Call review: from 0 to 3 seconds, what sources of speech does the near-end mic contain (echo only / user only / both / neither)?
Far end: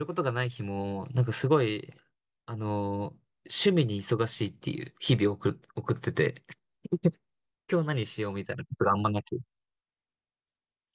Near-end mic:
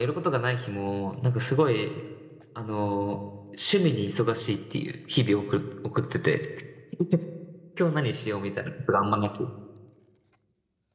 echo only